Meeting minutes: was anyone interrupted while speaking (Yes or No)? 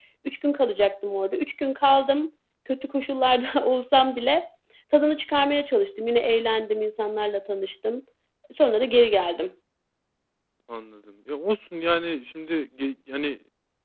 No